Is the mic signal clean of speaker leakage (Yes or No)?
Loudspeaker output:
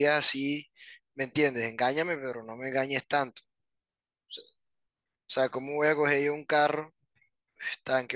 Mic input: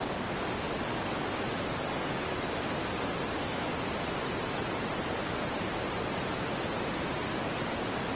Yes